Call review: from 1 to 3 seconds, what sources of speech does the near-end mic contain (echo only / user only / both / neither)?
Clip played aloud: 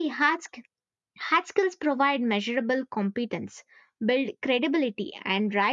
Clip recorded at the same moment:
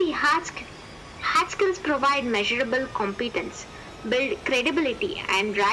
echo only